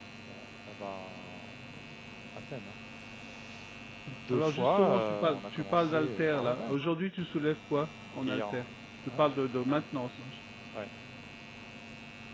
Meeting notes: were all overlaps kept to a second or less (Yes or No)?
No